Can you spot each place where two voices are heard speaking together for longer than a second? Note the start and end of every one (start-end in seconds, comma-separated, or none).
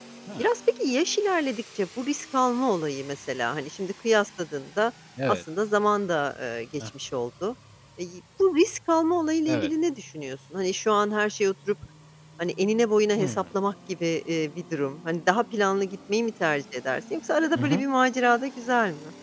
none